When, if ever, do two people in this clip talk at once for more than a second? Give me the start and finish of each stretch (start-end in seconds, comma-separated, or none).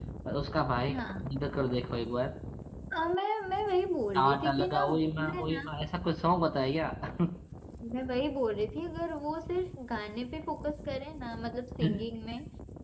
4.2-5.7